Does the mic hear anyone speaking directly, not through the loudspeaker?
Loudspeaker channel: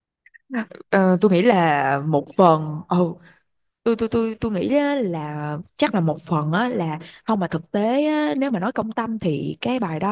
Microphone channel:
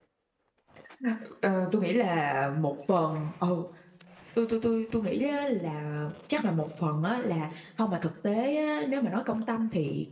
No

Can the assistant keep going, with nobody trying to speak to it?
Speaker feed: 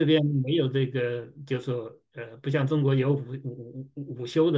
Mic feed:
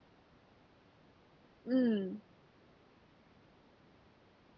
No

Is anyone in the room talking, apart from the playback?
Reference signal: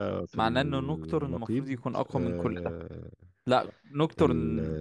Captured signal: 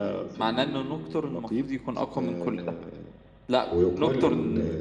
Yes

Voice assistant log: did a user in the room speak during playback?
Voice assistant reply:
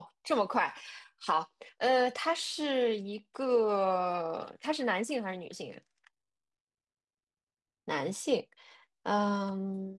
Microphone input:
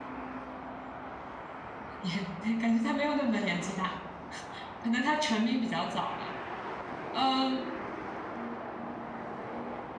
Yes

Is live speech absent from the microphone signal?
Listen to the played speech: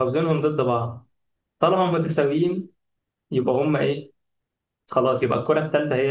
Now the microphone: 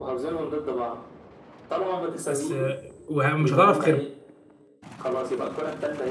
No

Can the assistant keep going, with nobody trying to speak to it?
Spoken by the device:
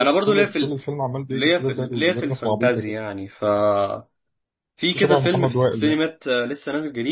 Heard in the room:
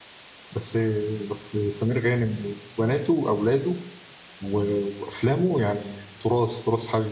No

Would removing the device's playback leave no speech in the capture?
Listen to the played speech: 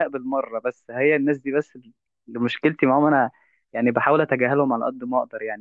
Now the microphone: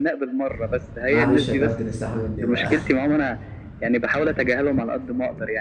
No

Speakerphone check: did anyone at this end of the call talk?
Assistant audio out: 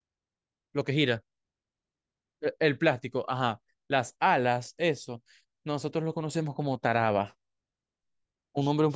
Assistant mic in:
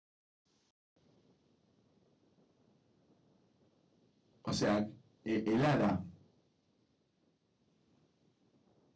Yes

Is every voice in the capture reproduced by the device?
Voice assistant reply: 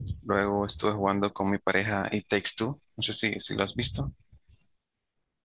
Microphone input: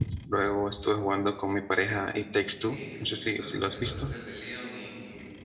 No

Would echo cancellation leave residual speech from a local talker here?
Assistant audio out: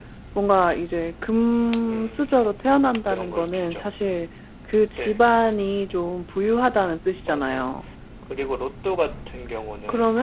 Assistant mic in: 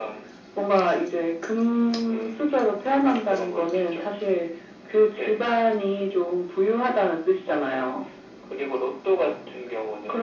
No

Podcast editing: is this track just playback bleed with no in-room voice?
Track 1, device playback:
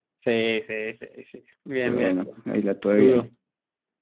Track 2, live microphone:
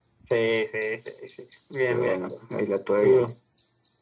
Yes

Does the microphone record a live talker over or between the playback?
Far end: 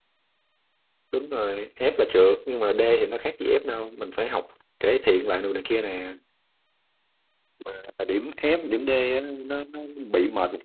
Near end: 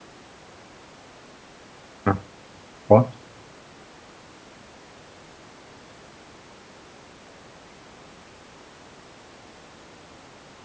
Yes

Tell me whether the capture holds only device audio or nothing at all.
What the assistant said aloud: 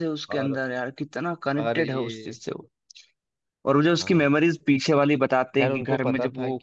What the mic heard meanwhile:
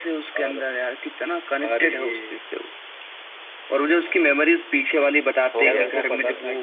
No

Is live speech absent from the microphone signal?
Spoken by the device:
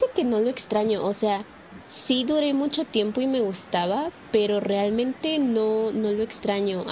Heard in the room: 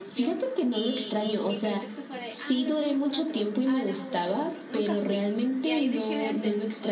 No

